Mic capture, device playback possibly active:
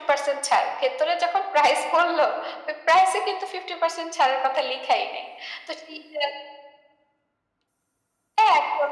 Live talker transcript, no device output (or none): none